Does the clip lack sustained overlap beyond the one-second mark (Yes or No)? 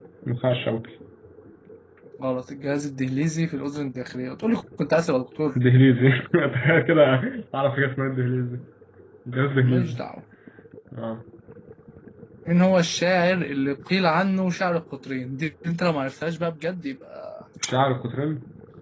Yes